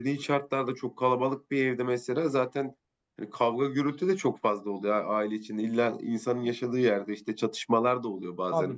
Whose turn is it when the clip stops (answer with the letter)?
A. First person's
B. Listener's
B